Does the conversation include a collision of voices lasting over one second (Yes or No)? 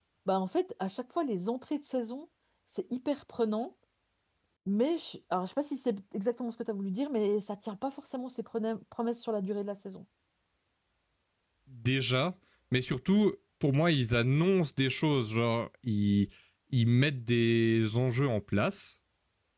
No